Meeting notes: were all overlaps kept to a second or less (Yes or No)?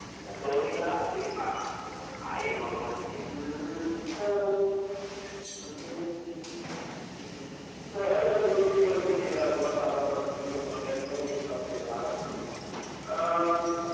Yes